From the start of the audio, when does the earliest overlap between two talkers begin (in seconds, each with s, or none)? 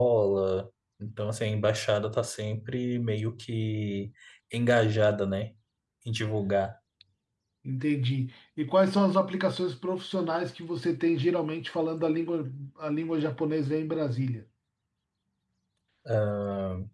none